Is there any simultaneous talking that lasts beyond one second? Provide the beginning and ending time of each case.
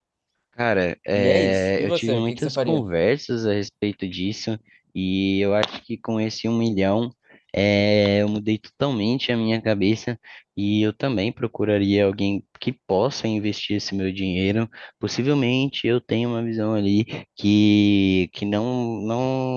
1.1-2.9

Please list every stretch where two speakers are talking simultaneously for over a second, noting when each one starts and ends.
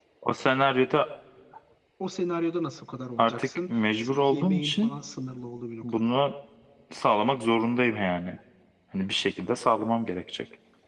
3.2-4.9

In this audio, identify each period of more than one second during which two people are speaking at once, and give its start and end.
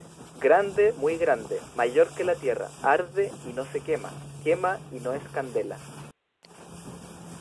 none

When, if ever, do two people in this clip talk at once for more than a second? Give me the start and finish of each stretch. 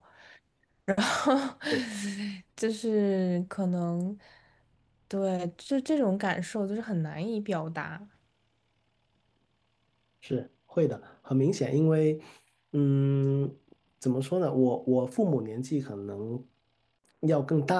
none

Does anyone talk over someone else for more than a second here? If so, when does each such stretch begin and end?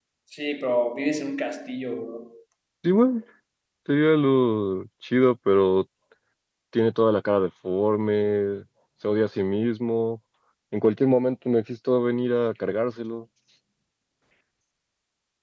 none

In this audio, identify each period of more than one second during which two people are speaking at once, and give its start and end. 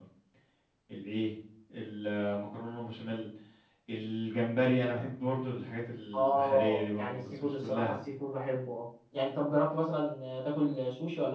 6.2-7.9

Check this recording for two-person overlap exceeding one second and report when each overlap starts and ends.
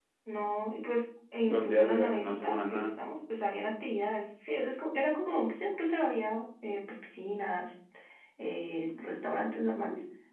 1.5-2.9

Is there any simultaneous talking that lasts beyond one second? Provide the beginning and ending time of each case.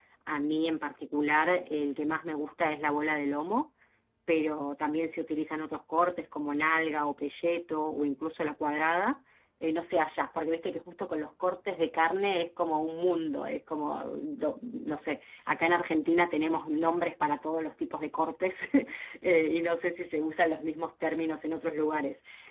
none

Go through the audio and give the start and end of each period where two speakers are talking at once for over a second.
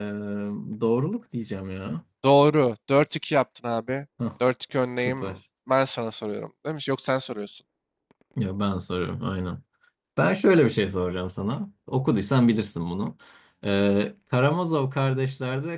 none

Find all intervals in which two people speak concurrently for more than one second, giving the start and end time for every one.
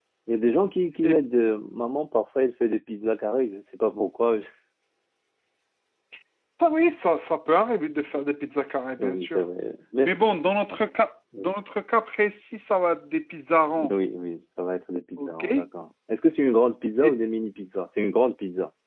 none

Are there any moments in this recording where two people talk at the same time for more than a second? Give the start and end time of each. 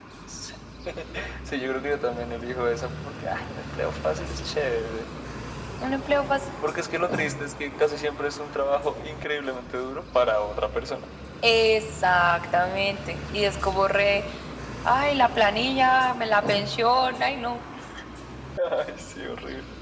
none

